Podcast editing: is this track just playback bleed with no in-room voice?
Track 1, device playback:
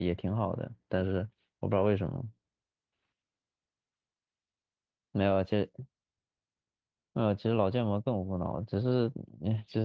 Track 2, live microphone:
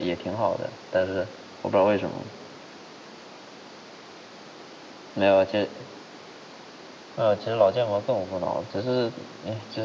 Yes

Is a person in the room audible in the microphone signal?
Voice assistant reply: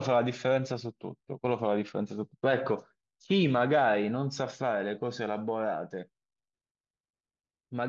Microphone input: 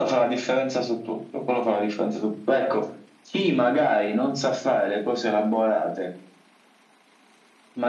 No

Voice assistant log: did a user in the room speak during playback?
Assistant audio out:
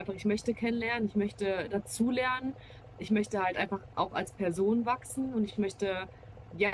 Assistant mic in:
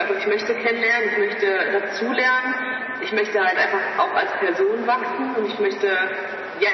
No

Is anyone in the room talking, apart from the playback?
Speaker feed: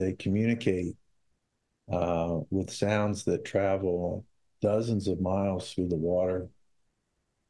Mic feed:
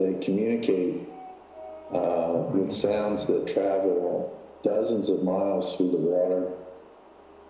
Yes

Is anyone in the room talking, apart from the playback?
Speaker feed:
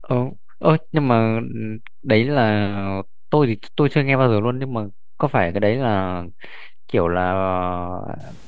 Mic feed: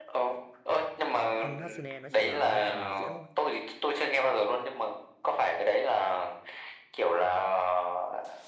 Yes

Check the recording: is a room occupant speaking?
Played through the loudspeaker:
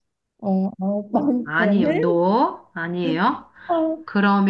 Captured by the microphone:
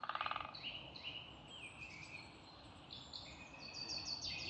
No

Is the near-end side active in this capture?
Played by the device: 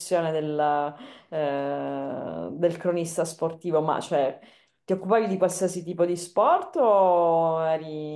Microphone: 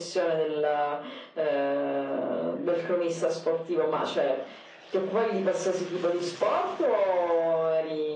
No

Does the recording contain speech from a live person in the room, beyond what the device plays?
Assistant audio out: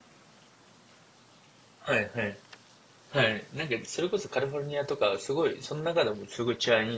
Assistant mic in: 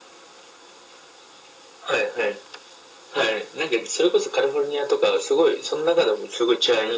No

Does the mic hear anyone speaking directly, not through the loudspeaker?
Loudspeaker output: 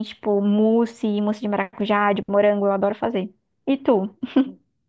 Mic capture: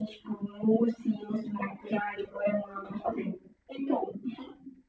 No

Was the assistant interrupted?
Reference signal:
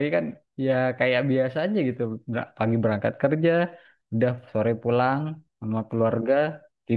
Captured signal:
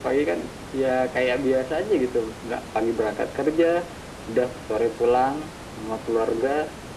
No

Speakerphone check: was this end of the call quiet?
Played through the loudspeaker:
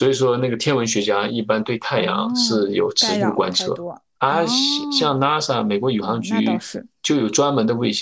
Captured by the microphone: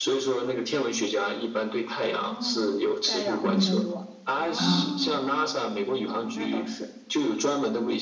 No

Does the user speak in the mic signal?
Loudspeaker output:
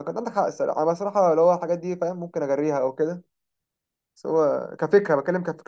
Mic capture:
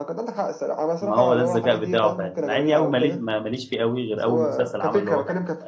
Yes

